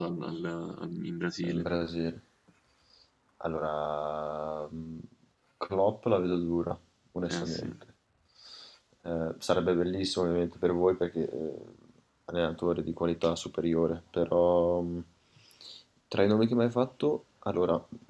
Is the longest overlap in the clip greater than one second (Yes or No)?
No